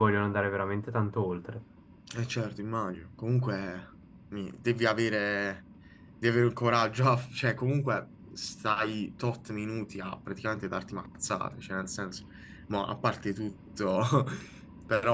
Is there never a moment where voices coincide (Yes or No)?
Yes